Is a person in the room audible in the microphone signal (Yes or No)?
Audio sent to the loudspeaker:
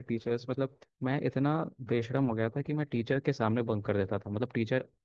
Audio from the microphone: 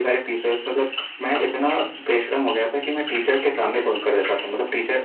No